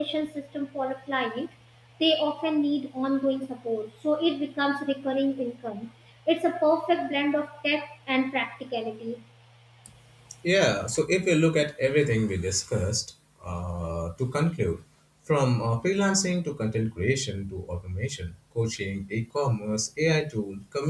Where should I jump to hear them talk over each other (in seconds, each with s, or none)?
none